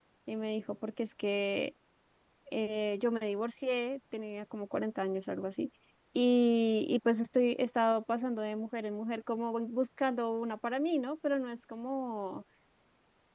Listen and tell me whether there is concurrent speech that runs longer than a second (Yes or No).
No